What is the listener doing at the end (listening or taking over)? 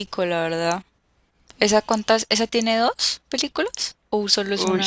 taking over